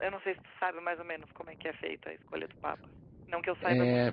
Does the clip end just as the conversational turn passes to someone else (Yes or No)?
Yes